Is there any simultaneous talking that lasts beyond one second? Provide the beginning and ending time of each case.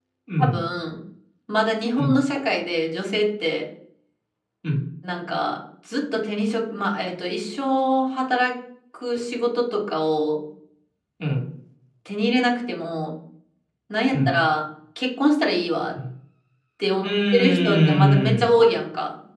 17.0-18.5

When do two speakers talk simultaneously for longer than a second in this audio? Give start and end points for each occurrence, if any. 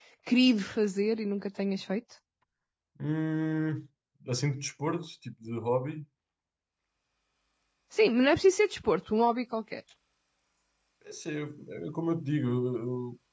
none

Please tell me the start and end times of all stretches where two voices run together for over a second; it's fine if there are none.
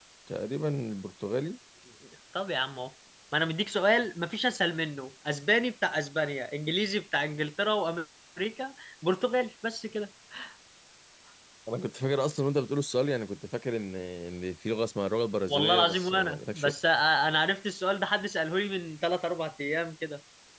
15.5-16.7

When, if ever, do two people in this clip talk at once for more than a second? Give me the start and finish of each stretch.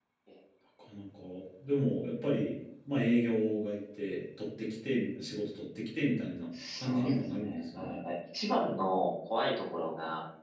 6.8-8.0

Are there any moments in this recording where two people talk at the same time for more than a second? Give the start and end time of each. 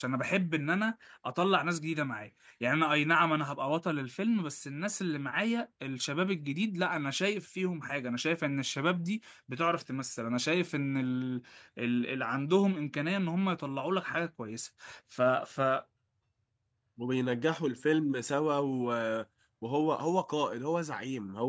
none

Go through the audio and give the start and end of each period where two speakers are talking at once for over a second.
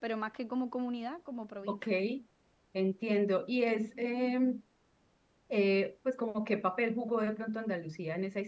none

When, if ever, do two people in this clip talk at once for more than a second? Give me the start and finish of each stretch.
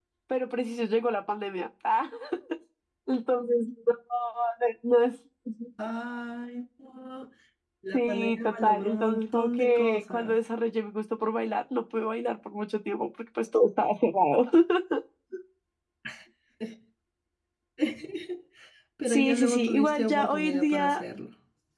7.9-10.4, 19.0-21.0

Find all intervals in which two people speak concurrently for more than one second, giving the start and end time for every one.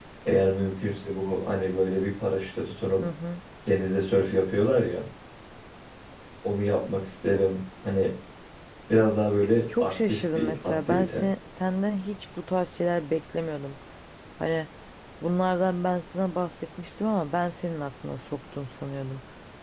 9.8-11.2

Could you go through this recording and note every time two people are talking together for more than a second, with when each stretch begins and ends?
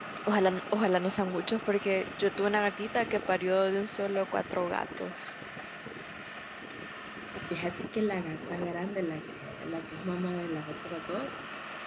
none

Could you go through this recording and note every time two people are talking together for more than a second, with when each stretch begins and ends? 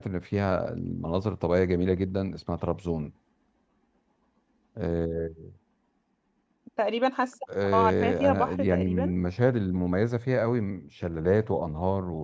7.6-9.1

